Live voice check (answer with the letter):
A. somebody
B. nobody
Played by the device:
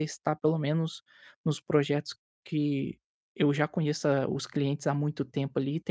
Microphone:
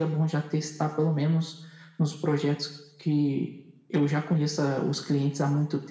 B